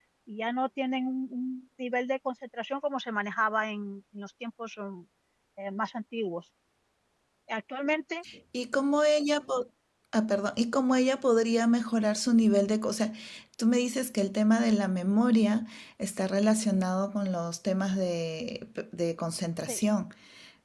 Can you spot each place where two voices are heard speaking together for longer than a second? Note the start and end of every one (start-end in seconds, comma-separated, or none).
none